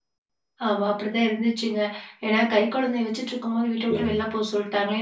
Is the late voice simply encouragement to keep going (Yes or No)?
Yes